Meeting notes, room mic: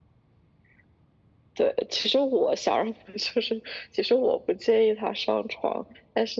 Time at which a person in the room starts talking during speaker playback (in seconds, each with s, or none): none